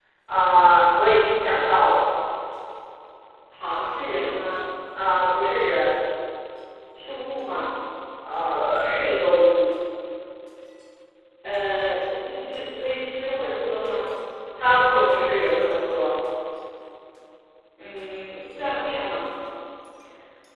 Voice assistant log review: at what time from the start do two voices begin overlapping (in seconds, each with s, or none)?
none